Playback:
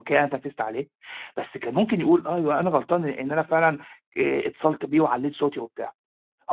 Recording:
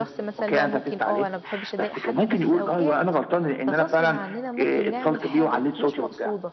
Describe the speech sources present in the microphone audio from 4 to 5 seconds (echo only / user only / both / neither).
both